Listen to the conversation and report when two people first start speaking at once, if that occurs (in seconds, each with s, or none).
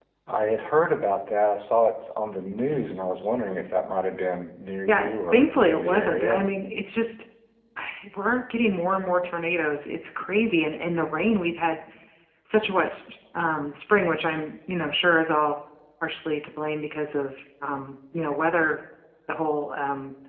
4.9 s